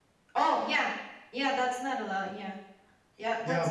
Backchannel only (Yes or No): No